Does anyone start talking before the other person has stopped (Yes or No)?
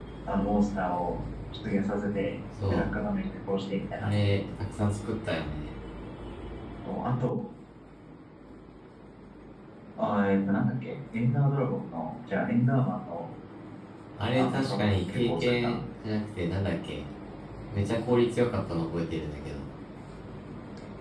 Yes